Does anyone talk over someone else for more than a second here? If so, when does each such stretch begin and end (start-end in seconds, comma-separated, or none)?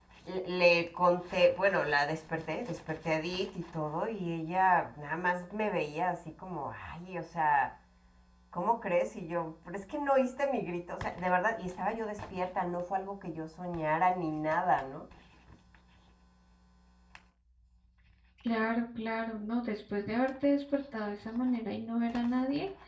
none